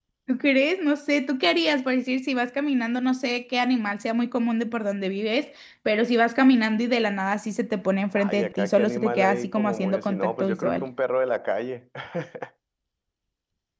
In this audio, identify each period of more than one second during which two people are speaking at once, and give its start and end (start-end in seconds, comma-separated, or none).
8.2-10.8